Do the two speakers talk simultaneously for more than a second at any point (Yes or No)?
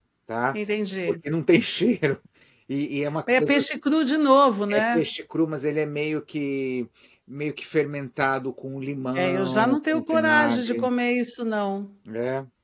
Yes